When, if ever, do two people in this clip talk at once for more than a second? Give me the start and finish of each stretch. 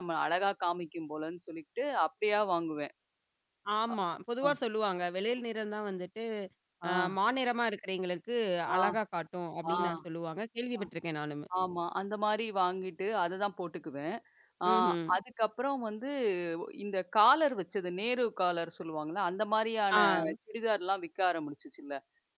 none

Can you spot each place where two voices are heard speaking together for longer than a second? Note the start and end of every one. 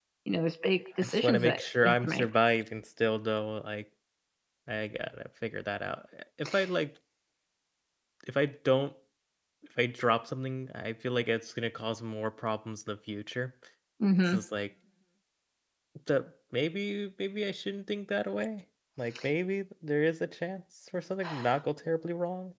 1.0-2.3

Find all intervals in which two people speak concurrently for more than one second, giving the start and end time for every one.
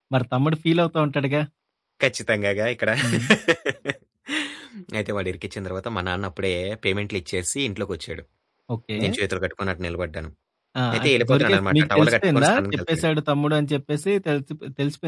10.9-13.1

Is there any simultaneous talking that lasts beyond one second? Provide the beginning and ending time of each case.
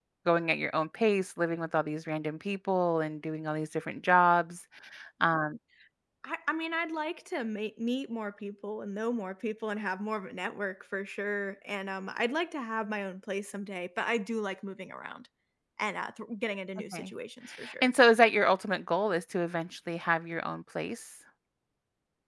none

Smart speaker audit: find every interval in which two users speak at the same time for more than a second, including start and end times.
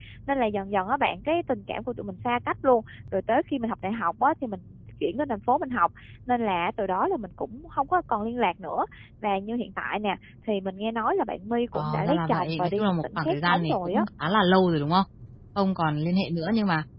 11.7-14.0

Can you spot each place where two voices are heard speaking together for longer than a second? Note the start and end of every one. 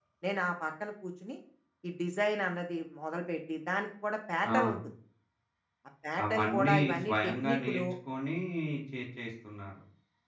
6.2-7.8

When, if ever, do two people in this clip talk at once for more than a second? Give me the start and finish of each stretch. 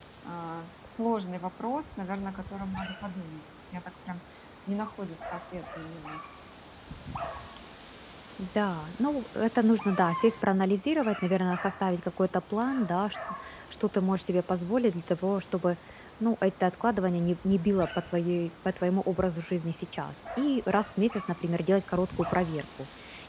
none

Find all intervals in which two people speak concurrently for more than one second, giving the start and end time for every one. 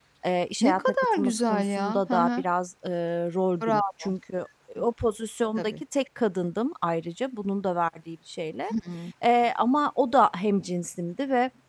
0.6-2.4

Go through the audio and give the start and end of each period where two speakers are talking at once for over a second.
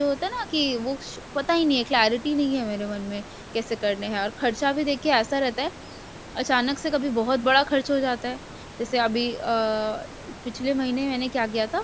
none

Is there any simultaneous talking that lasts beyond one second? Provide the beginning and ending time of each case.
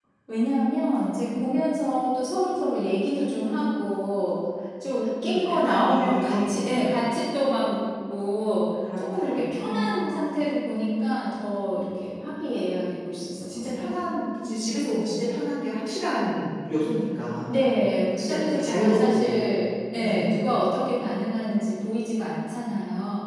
5.3-6.9, 9.0-10.3, 18.2-19.5

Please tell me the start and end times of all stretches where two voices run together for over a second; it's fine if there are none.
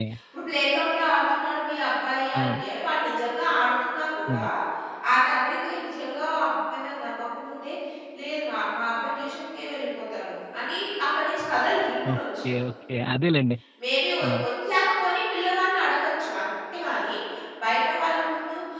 none

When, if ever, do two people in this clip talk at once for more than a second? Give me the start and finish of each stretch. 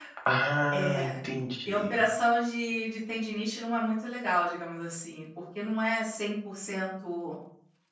none

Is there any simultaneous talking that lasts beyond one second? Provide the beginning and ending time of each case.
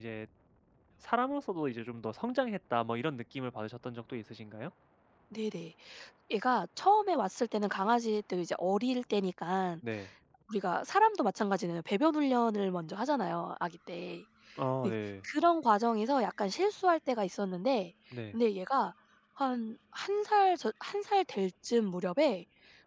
none

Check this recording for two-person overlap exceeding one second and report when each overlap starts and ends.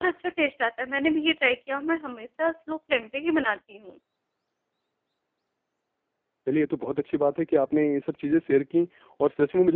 none

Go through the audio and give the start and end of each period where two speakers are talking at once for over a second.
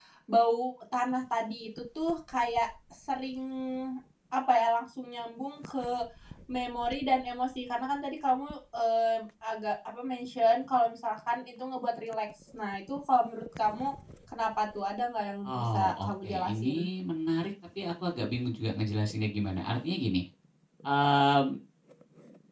15.4-16.8

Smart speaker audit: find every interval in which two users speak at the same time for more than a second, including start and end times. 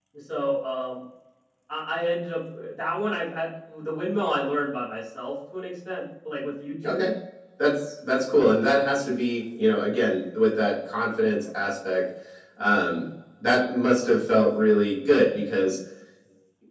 none

